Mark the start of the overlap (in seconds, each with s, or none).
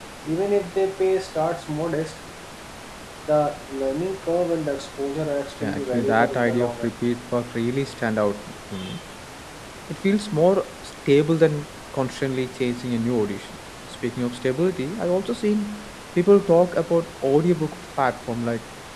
5.6 s